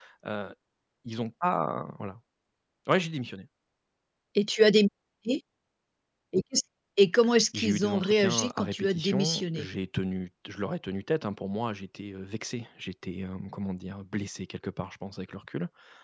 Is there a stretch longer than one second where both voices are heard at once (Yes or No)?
Yes